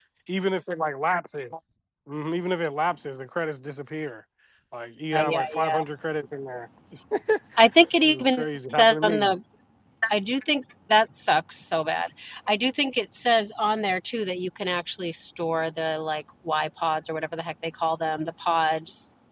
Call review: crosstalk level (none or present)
present